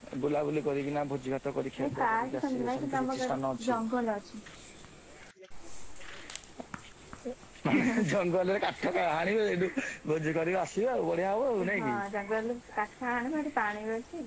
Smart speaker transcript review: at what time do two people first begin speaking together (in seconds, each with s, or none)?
1.8 s